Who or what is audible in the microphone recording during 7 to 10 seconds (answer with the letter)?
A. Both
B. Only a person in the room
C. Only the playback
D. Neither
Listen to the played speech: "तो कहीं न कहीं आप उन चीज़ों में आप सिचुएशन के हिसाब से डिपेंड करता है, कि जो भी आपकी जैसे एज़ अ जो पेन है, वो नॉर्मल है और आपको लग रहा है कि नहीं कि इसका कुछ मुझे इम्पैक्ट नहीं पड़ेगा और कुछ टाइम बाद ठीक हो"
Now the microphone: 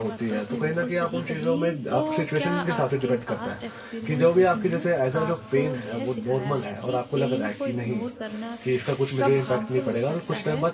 A